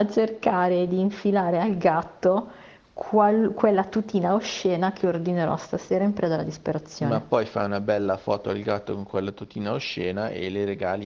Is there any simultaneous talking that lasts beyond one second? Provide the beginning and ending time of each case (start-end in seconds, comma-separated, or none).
none